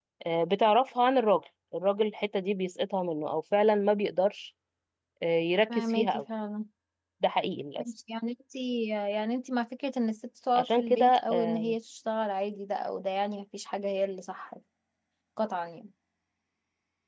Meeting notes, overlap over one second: present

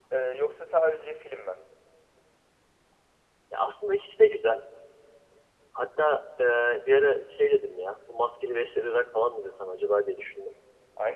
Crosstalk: none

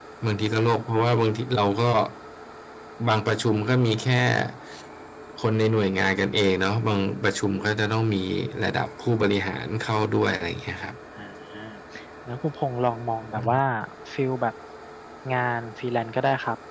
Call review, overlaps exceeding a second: none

